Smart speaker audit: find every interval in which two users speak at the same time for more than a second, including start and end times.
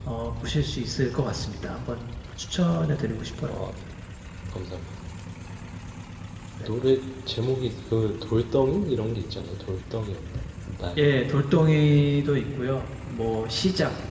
none

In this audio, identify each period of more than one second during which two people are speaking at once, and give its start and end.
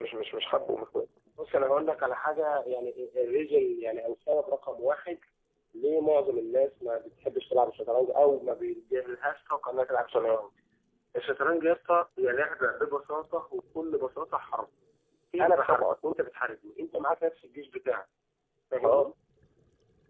none

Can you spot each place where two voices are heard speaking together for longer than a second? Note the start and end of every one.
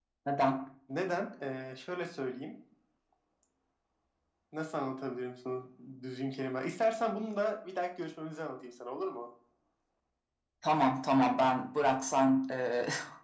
none

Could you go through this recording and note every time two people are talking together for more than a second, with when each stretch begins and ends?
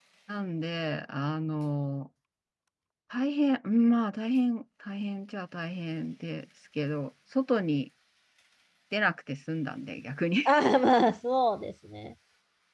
none

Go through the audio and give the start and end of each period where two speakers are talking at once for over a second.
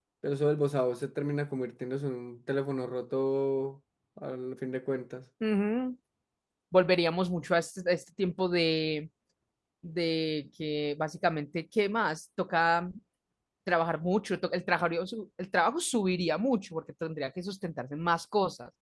none

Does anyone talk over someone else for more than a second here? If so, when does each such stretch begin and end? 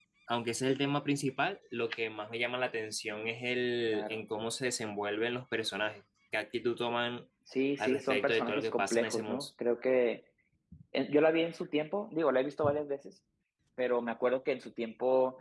7.8-9.4

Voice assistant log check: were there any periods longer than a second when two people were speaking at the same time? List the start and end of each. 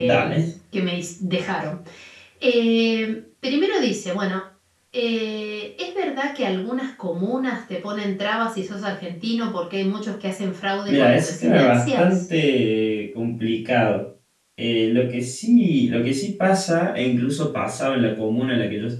10.9-12.2

